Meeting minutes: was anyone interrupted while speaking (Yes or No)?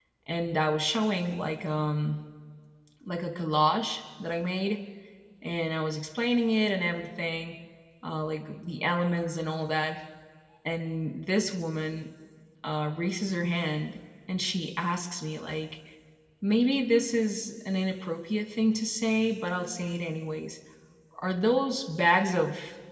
No